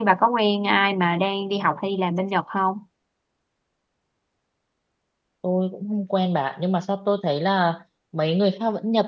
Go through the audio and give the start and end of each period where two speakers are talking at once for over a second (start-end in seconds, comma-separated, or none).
none